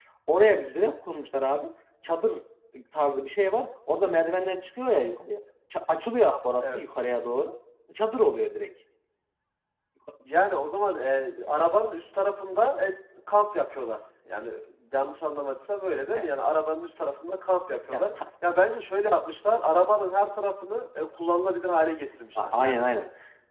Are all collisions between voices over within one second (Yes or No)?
Yes